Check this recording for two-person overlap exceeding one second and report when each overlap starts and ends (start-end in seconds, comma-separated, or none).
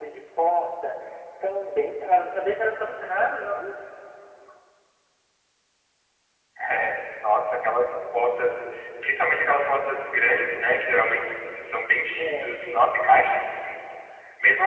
none